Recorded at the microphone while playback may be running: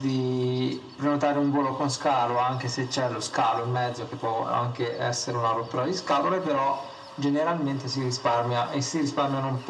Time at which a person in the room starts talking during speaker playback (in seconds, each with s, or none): none